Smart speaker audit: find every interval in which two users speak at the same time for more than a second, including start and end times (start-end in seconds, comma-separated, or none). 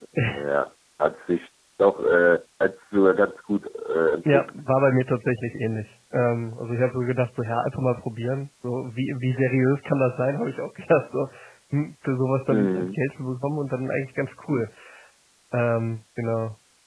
none